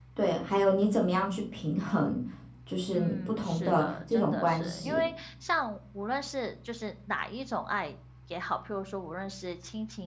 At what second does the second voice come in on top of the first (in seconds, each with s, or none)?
2.9 s